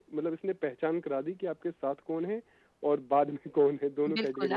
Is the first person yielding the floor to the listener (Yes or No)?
Yes